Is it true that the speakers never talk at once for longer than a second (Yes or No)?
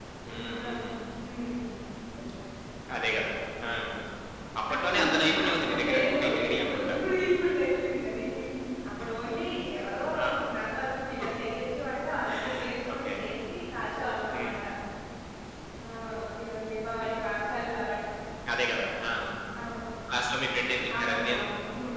No